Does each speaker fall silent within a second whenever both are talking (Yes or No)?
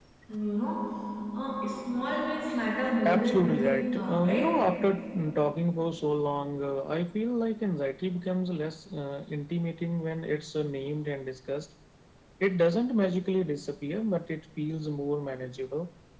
No